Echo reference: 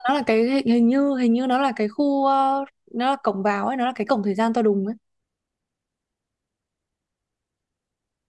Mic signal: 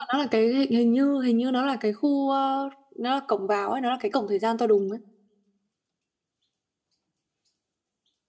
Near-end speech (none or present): none